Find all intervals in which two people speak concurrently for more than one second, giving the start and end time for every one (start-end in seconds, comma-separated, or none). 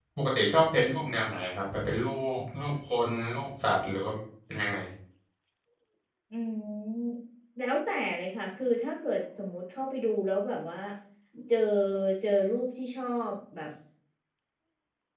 none